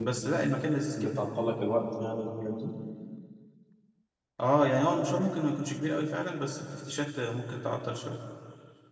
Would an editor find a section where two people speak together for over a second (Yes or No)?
No